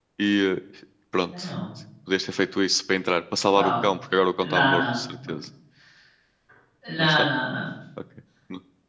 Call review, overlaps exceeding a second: none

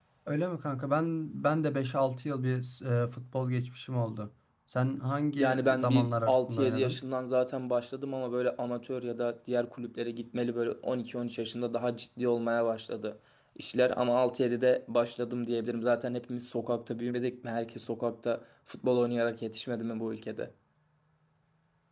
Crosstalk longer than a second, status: present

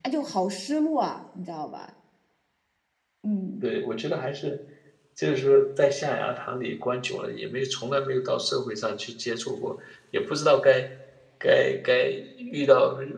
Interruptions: none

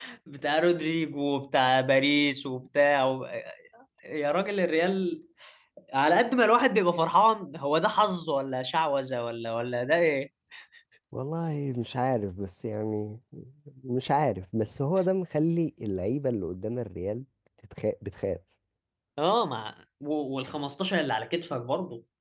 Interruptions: none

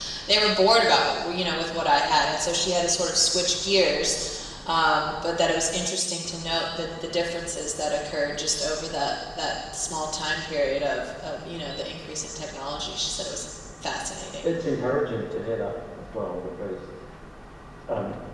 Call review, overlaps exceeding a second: none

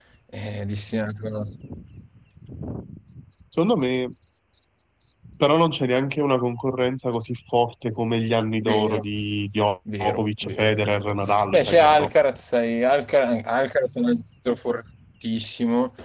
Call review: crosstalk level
present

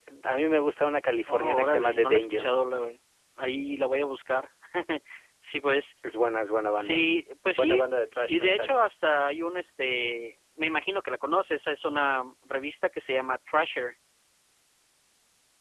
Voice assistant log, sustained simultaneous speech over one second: present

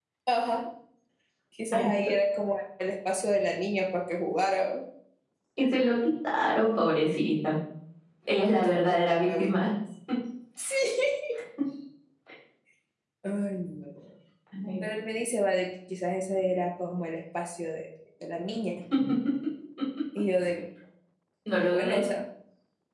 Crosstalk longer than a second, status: present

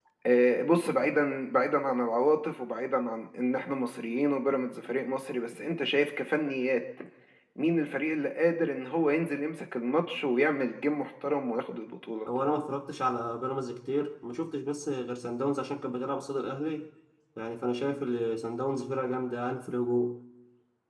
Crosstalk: none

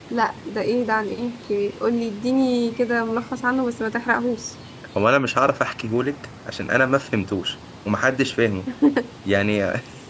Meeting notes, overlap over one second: none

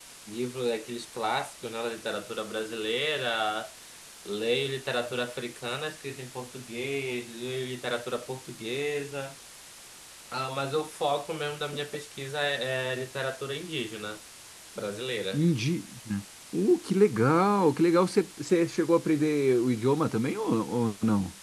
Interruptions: none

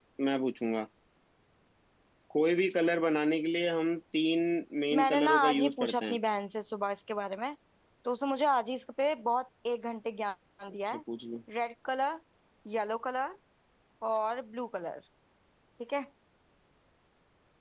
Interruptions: present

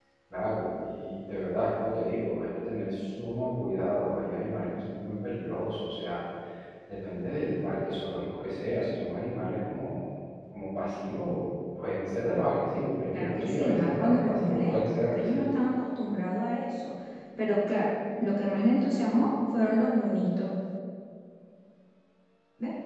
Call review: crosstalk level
present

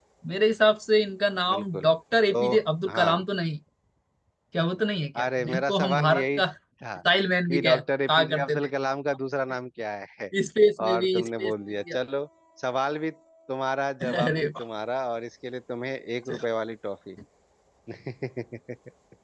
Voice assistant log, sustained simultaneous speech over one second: present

